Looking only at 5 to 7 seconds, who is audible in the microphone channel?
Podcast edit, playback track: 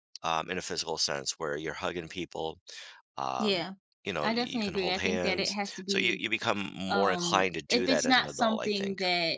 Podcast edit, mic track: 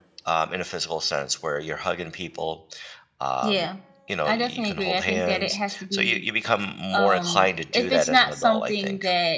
echo only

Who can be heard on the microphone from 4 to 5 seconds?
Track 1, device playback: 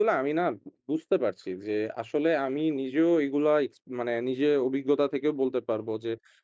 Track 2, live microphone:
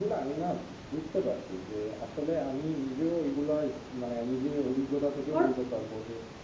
echo only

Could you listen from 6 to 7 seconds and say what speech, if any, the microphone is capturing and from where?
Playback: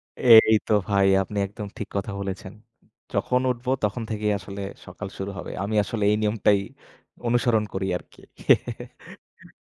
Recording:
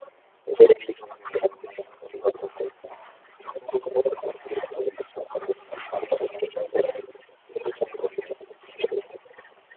echo only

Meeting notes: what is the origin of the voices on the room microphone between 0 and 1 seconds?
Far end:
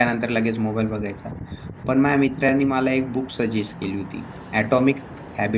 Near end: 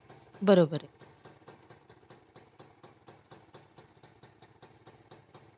user only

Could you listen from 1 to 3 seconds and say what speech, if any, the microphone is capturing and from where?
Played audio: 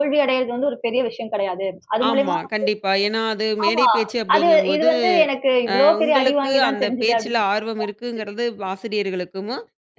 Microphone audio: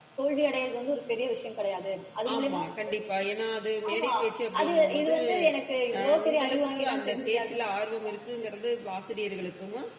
echo only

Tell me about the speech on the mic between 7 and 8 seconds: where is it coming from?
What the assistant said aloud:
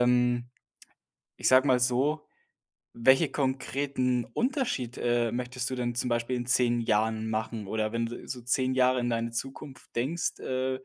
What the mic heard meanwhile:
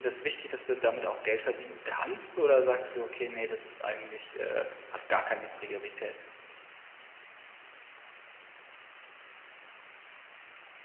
neither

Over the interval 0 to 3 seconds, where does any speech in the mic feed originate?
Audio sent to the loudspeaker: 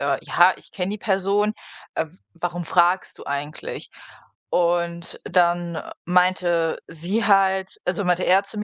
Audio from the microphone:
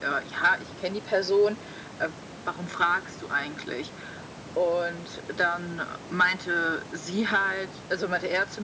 echo only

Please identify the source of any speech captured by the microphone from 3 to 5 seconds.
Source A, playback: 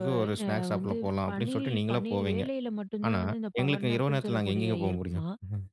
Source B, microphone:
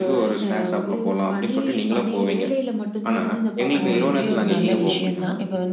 both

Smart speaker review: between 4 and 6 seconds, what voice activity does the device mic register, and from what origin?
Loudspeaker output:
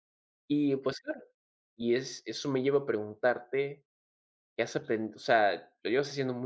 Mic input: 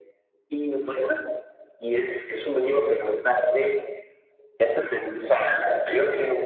echo only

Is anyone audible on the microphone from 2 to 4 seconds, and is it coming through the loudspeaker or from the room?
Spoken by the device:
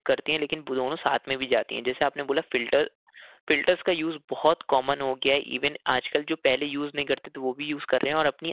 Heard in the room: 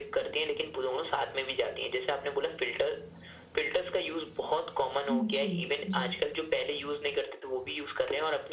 echo only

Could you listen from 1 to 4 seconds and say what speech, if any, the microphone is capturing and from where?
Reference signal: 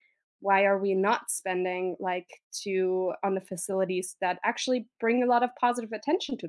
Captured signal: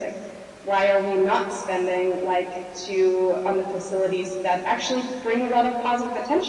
echo only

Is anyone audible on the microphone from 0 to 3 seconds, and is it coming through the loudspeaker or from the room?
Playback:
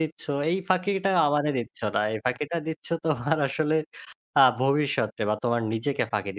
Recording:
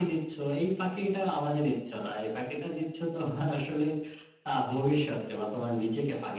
echo only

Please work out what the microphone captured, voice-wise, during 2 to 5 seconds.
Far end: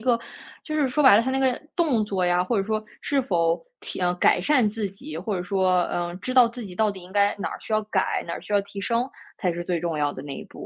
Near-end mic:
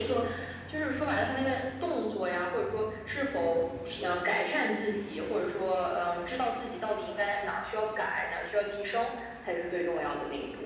echo only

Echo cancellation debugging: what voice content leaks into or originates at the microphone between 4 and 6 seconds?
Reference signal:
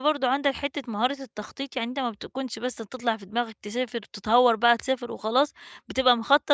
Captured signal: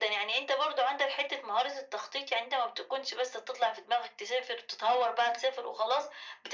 echo only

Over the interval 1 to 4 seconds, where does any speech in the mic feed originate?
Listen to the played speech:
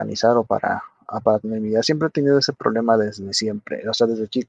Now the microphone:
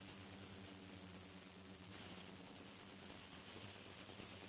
neither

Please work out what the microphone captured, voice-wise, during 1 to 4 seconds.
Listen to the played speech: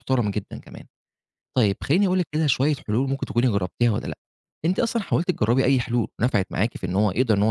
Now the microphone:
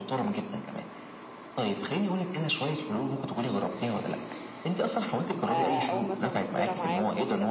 echo only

